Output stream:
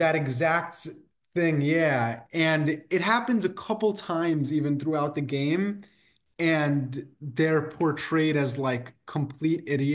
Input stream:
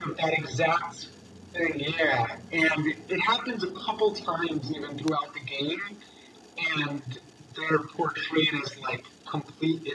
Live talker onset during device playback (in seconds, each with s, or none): none